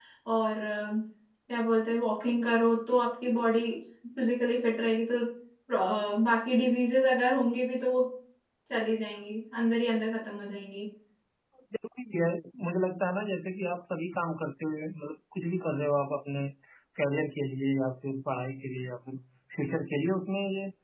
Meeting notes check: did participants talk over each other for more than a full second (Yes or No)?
No